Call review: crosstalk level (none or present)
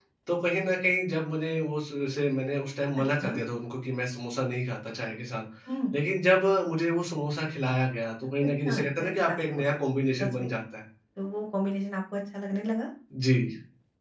present